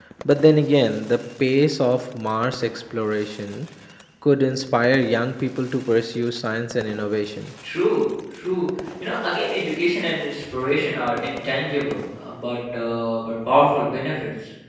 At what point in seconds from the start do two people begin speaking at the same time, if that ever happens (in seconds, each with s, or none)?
none